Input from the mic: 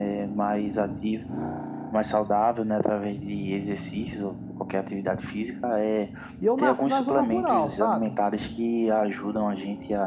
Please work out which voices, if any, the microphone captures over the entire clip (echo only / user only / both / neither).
both